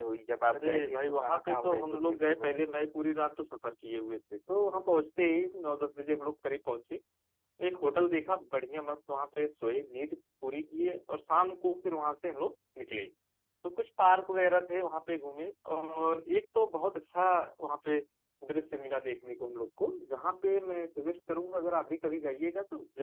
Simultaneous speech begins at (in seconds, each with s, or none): 0.5 s